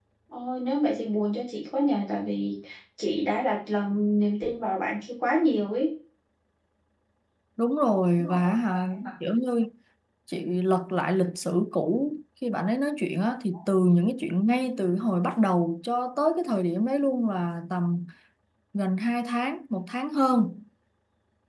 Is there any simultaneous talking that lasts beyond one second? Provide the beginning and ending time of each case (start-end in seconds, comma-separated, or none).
none